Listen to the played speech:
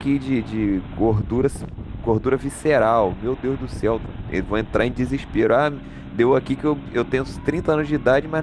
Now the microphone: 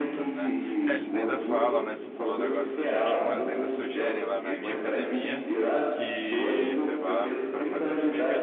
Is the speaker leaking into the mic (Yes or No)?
Yes